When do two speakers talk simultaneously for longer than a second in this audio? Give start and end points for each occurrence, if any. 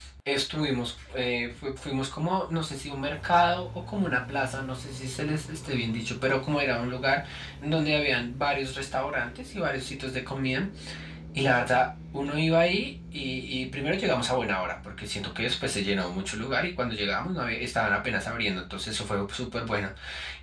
none

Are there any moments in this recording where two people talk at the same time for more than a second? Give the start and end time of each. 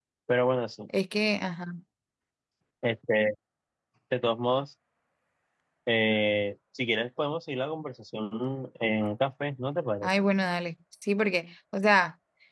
none

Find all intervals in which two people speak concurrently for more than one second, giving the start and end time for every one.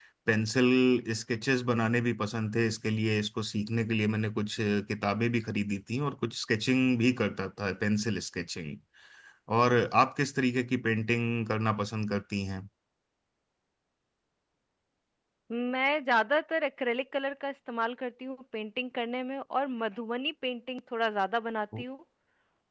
none

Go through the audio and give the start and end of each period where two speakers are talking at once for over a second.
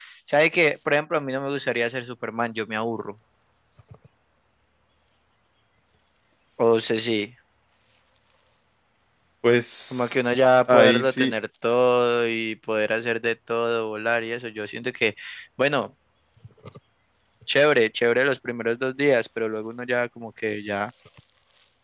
9.9-11.3

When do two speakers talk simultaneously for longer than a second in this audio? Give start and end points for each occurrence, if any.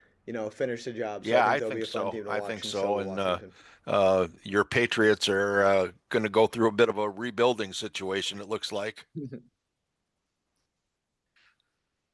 1.2-3.4

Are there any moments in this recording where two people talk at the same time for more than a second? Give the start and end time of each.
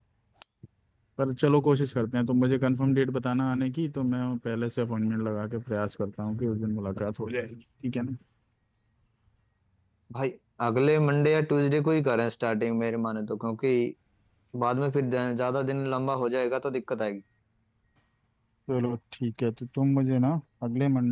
none

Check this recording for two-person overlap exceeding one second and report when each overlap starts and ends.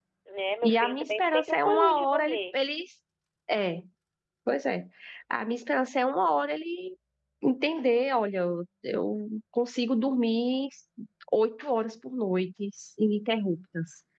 0.6-2.4

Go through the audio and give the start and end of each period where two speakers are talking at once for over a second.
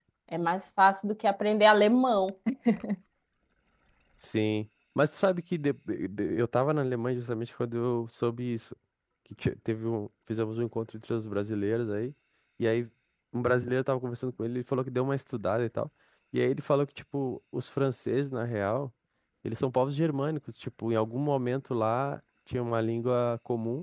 none

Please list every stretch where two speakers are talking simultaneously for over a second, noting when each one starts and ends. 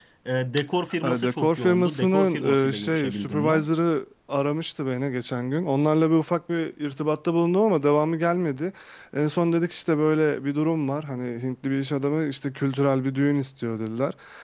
1.0-3.7

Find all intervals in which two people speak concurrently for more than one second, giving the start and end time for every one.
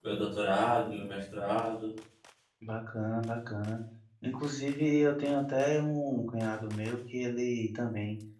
none

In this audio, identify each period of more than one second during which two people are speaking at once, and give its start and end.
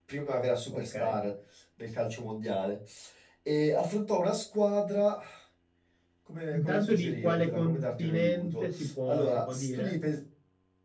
6.5-10.0

